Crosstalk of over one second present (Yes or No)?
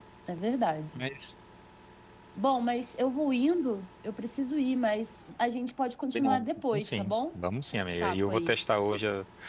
Yes